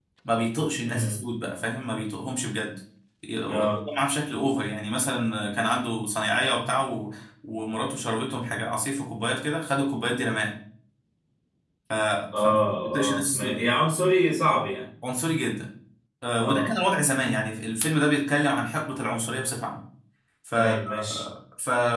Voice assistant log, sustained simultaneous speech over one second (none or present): present